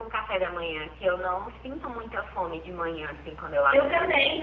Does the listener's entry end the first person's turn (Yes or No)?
Yes